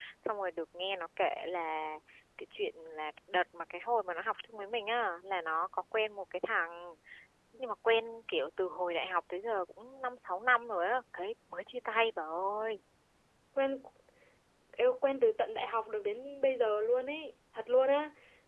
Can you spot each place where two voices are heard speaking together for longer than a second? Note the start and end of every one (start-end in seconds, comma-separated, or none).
none